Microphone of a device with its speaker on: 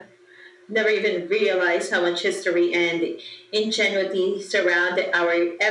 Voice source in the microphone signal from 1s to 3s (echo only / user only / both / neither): echo only